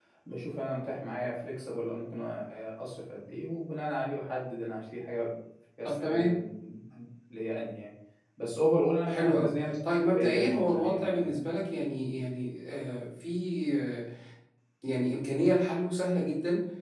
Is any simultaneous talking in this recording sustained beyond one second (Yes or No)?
Yes